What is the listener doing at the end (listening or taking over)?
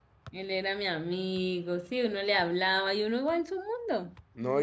taking over